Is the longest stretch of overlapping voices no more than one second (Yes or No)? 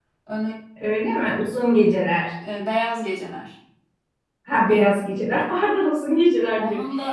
Yes